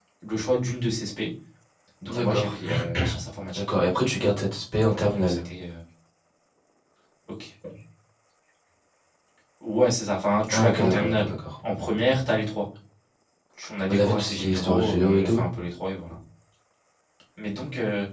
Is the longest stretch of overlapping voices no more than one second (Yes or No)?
No